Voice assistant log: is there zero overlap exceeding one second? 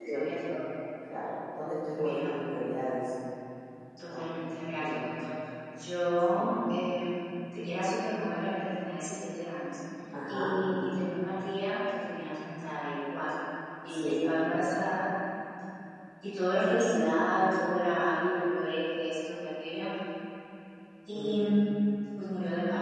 Yes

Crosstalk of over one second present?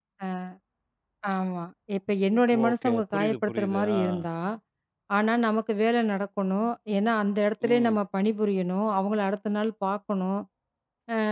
Yes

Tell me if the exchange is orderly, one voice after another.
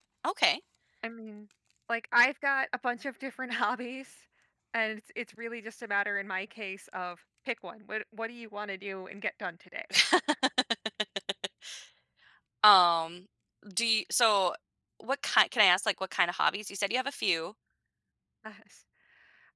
Yes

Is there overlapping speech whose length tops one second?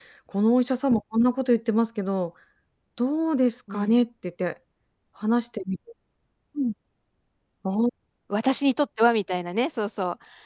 No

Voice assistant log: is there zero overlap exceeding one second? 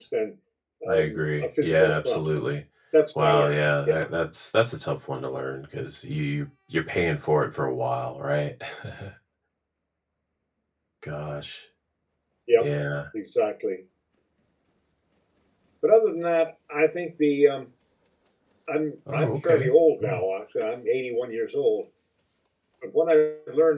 No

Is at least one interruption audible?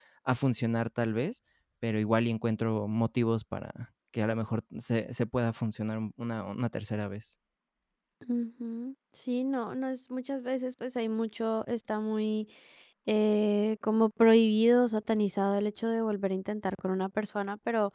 No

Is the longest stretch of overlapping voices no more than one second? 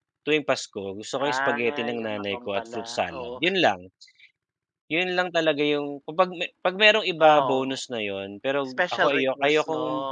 No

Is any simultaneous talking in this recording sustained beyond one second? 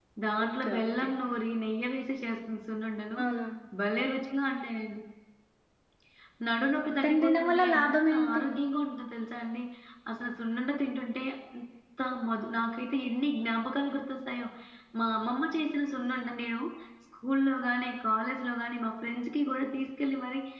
Yes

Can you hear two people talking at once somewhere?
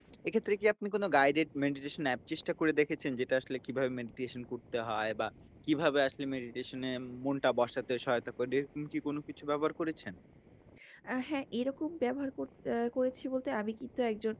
No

